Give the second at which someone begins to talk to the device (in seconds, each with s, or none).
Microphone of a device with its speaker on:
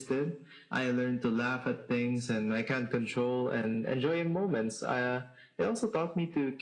none